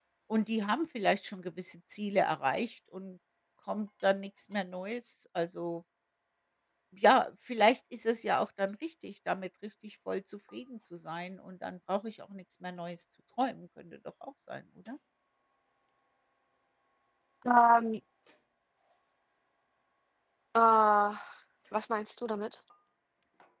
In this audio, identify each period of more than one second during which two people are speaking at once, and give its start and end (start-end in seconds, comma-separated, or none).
none